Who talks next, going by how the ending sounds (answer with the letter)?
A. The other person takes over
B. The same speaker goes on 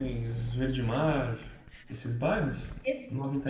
A